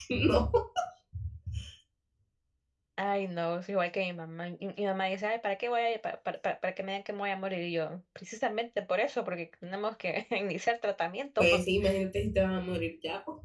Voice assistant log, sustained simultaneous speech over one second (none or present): none